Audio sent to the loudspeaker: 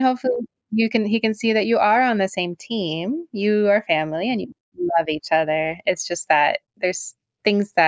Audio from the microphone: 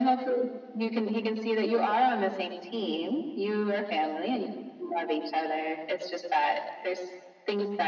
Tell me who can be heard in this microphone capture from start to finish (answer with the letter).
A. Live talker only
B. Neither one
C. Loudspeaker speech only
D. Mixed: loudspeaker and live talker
C